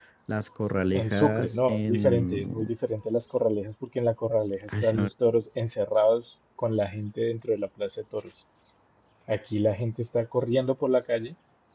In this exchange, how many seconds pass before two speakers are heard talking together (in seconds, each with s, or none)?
0.9 s